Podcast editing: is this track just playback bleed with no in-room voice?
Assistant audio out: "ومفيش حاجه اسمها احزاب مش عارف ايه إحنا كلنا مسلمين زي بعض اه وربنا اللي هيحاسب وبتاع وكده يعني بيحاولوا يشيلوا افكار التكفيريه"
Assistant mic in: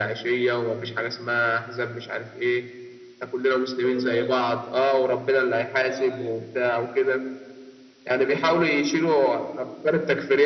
No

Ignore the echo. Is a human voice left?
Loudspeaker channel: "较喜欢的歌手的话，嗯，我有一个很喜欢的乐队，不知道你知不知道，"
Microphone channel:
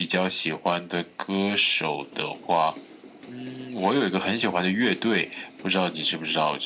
No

